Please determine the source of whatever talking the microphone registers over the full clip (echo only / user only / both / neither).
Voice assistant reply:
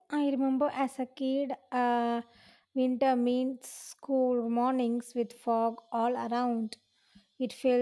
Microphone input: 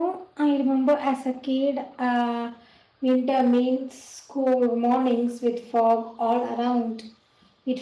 echo only